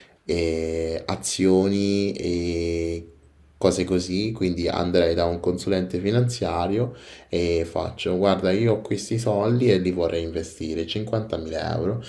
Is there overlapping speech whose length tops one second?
No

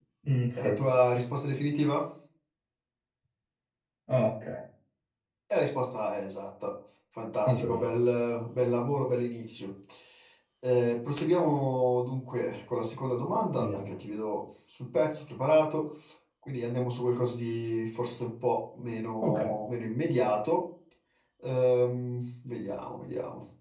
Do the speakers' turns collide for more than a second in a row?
No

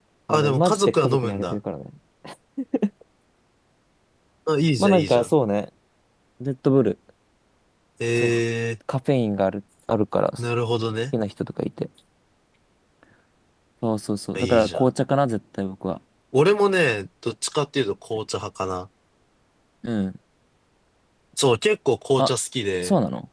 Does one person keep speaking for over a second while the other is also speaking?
Yes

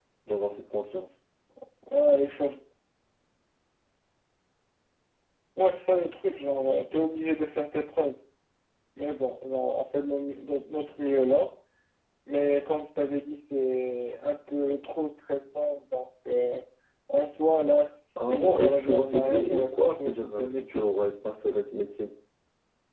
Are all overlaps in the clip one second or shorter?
No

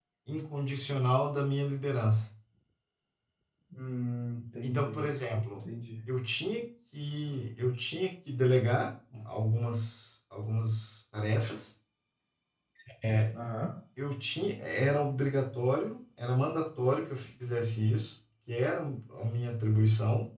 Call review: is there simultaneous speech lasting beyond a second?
No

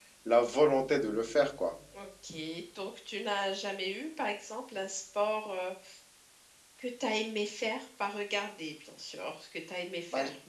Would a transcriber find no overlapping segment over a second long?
Yes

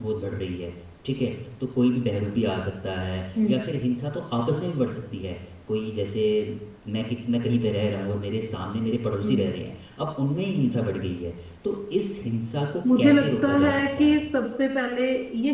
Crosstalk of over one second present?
Yes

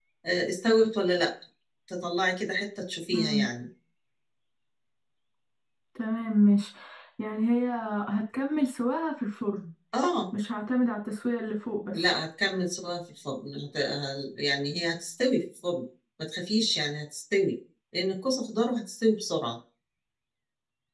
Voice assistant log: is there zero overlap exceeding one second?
Yes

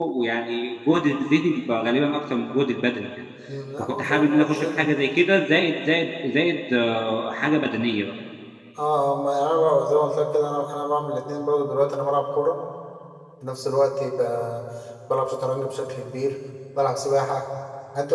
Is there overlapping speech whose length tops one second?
Yes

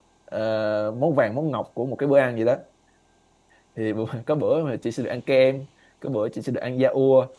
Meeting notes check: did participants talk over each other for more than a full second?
No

